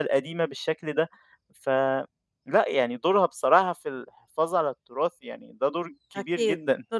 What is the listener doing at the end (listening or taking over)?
taking over